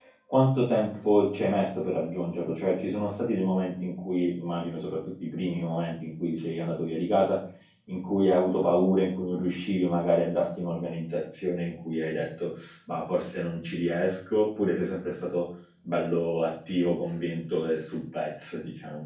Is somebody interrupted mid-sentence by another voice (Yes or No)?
No